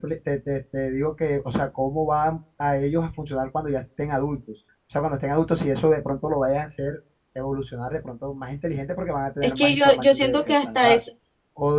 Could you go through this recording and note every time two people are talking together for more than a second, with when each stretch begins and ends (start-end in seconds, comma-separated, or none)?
9.4-11.0